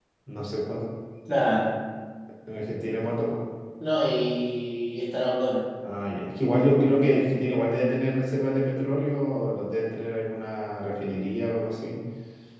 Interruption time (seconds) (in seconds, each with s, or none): none